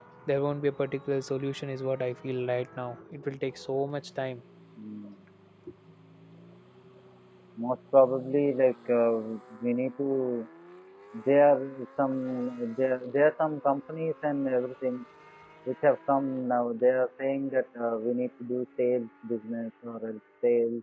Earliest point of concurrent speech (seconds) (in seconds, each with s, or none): none